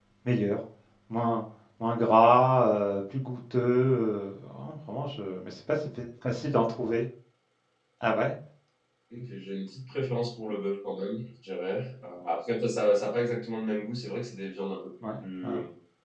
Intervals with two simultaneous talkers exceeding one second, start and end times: none

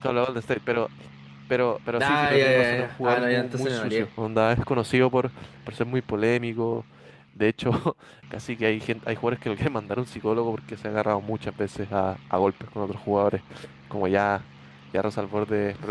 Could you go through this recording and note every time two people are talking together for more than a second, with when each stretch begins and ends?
2.0-4.1

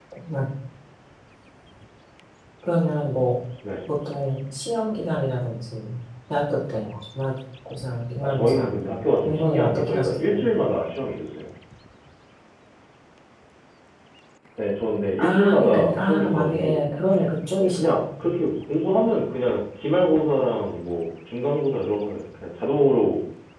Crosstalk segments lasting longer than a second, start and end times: 9.2-10.4, 15.2-16.8

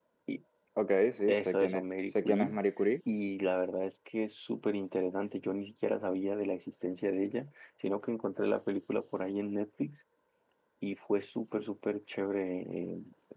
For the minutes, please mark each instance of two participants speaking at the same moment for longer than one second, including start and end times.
1.3-2.5

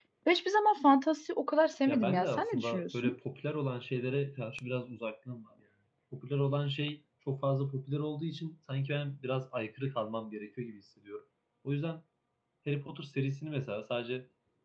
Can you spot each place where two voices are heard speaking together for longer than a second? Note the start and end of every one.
1.9-3.1

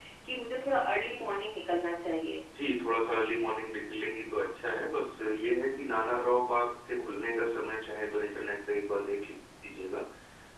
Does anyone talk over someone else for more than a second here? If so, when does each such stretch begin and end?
none

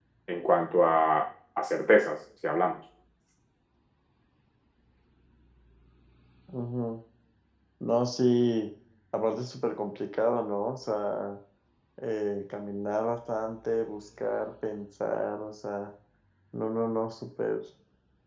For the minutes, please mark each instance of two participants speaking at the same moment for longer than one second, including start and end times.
none

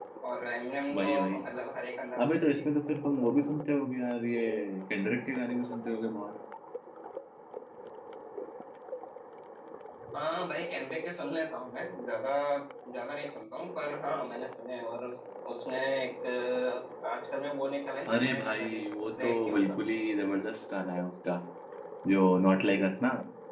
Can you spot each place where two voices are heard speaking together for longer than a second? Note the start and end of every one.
18.1-19.6

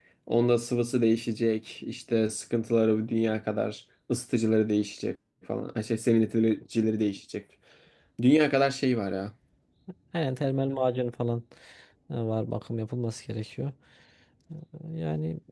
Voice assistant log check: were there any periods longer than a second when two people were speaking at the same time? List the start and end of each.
none

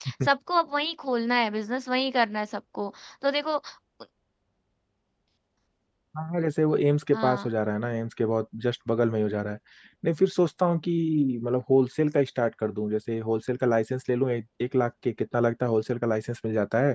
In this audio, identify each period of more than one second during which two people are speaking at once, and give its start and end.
none

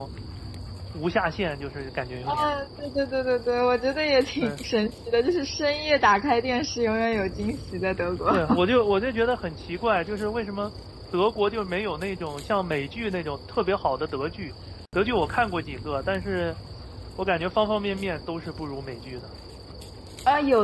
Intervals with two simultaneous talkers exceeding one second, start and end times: none

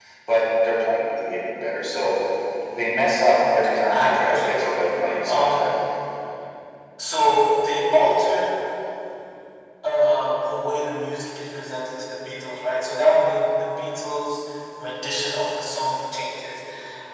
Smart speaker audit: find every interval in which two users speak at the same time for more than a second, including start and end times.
3.4-5.7

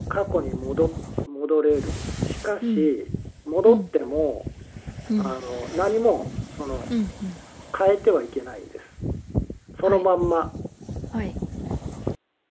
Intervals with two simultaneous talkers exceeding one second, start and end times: none

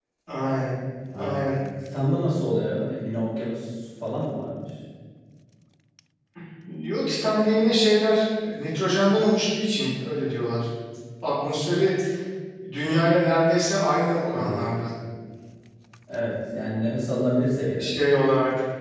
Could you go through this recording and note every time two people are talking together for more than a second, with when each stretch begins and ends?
none

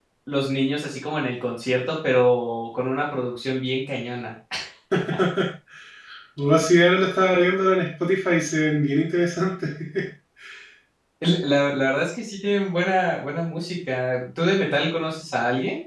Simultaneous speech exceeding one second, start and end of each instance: none

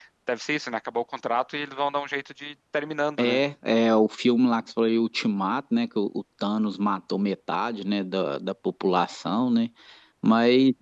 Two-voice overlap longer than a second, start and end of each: none

